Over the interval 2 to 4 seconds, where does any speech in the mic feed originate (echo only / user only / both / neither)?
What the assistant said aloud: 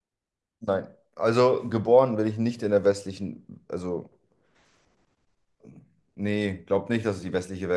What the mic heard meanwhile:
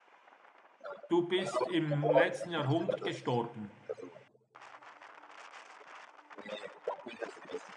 both